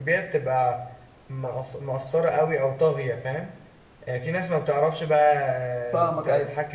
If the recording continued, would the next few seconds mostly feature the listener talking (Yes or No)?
No